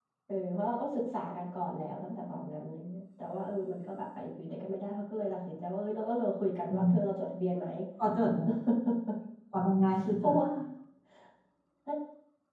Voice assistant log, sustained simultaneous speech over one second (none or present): none